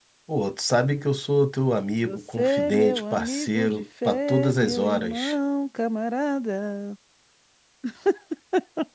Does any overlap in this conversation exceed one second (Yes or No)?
Yes